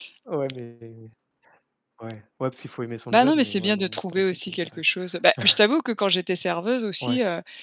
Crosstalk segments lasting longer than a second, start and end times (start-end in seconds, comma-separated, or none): 3.1-4.8